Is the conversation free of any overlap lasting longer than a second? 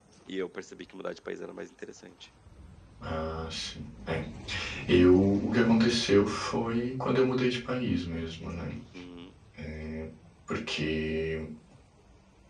Yes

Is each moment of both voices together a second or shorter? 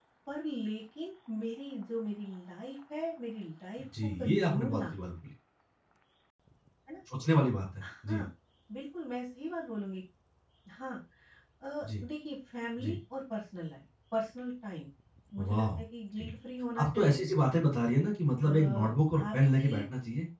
No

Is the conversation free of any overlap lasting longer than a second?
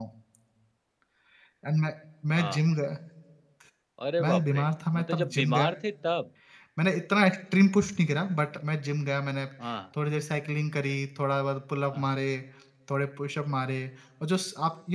No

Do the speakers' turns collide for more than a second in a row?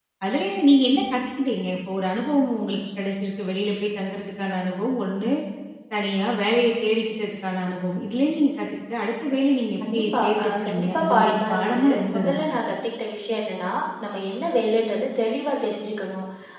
Yes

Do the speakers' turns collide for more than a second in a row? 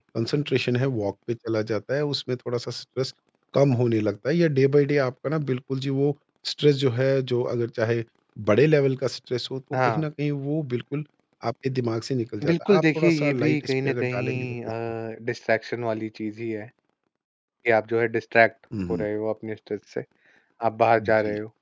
Yes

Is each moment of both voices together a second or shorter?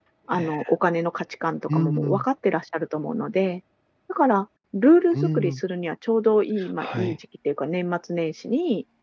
Yes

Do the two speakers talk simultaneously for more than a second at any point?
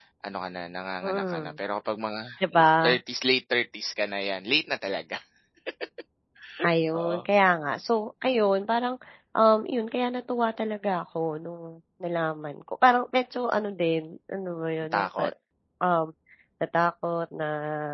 No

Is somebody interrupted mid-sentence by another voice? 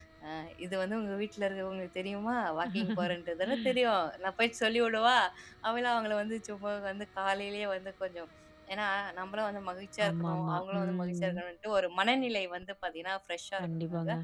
Yes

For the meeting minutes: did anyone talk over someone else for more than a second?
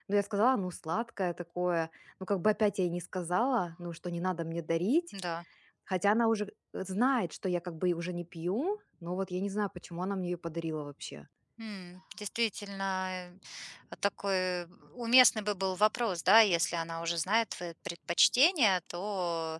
No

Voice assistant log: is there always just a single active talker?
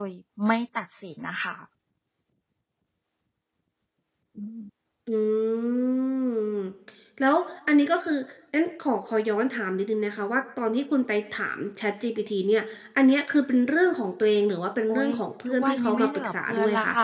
No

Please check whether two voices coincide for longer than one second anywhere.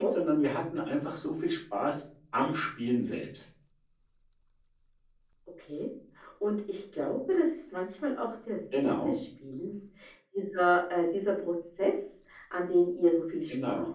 No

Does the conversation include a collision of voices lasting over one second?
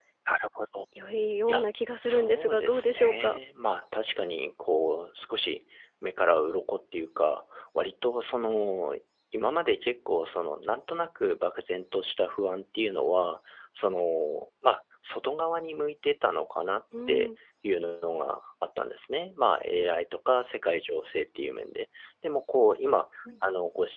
Yes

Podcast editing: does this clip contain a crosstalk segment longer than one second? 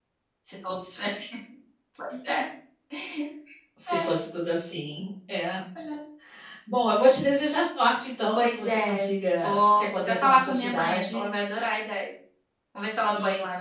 Yes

